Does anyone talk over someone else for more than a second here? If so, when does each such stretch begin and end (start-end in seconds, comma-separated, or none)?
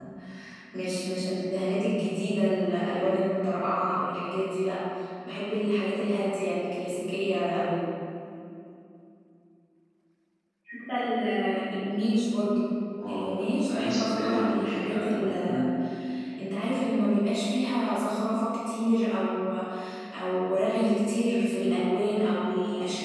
13.7-15.1